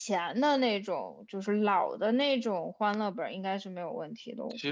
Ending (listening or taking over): taking over